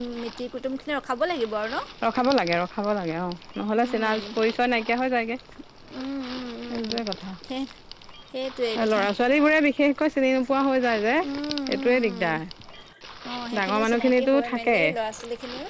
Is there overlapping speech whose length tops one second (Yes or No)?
Yes